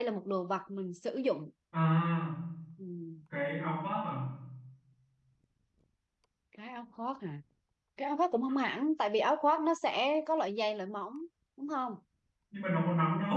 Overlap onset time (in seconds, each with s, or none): none